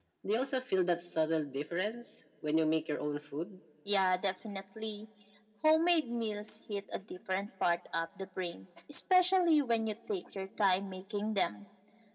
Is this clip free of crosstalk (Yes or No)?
Yes